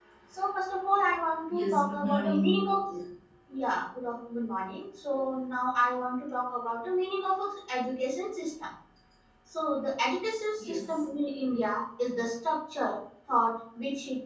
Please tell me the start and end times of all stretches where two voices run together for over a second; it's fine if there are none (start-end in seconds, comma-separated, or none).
1.5-2.8